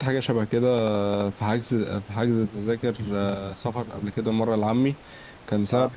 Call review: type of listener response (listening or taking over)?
listening